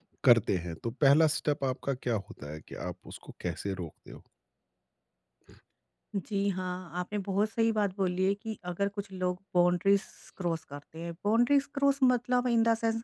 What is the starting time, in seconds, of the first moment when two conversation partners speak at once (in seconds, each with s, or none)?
none